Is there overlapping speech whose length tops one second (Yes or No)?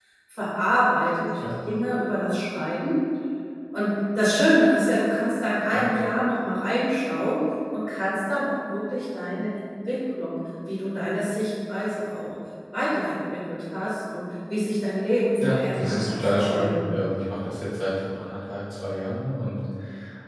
Yes